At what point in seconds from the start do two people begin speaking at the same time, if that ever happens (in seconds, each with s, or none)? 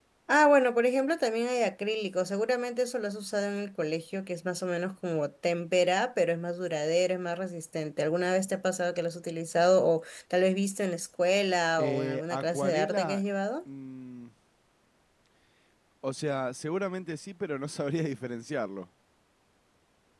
11.8 s